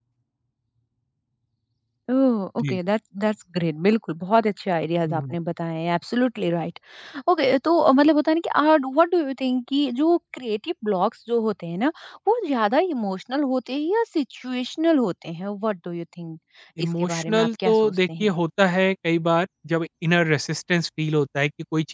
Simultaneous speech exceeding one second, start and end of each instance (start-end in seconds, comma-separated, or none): 17.0-18.3